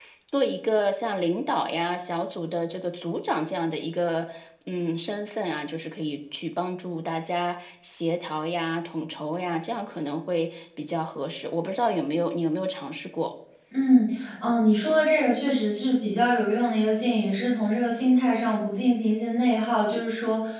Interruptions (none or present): none